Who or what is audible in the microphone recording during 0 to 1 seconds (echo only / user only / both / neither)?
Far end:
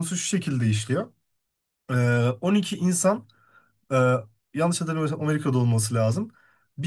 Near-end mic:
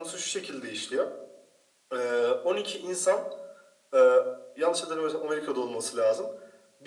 echo only